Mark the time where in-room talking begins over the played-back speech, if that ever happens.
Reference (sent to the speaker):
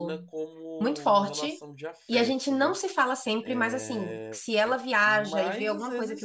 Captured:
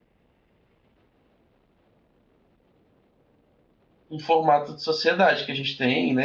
4.1 s

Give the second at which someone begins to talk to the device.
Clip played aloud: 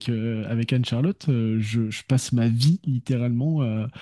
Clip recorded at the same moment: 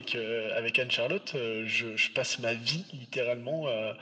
none

